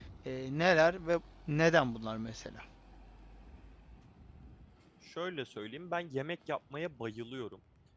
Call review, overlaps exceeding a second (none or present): none